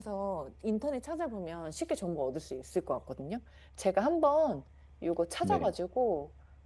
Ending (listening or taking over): listening